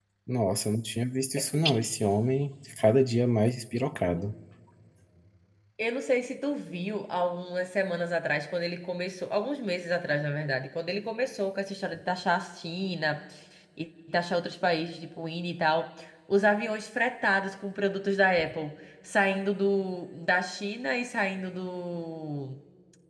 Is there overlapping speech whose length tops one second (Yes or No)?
No